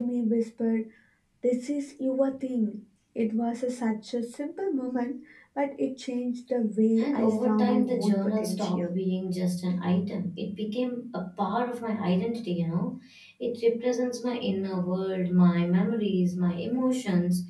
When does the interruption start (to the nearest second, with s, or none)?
7 s